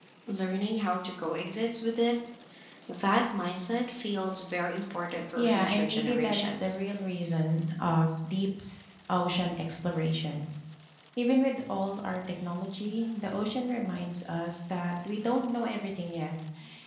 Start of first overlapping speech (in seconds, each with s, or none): 5.4 s